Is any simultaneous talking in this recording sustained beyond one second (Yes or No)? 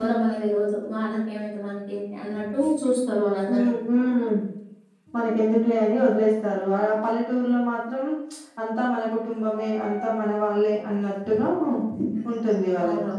No